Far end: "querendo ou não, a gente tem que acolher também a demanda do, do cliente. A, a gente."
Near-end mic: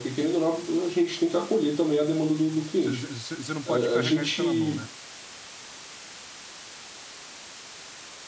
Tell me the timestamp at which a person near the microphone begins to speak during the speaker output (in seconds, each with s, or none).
2.8 s